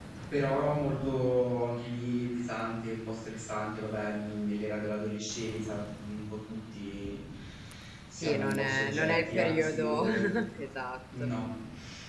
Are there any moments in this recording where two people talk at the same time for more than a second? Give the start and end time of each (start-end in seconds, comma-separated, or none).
8.2-10.0